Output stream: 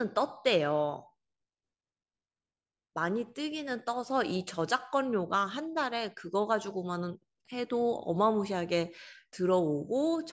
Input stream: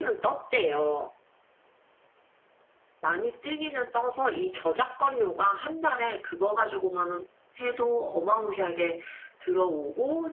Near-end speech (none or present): none